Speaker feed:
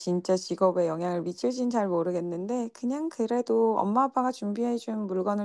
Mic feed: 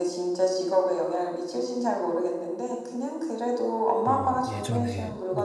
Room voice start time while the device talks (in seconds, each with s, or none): 4.0 s